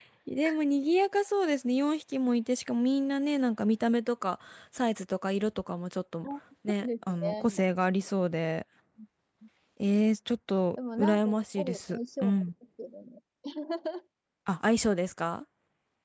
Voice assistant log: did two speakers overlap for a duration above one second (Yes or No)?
Yes